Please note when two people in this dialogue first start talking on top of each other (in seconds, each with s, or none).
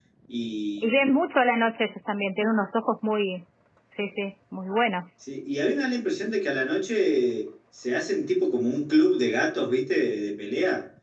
none